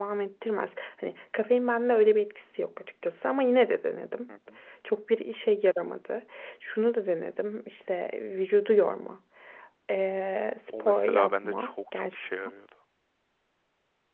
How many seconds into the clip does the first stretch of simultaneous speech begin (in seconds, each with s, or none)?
10.7 s